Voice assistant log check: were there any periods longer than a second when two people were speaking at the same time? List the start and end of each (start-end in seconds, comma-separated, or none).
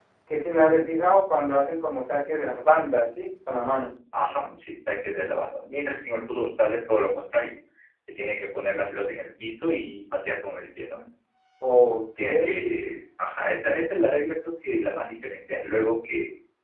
none